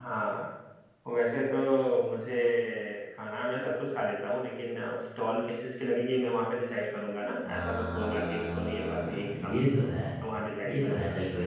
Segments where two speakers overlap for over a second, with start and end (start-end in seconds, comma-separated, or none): 7.5-9.7